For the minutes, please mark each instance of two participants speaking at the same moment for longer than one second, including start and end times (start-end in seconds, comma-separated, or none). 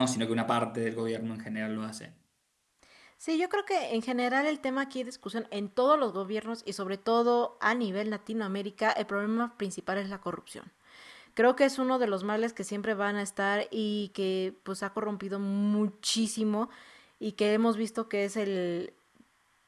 none